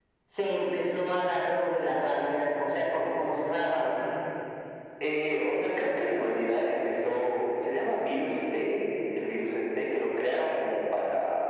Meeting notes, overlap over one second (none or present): none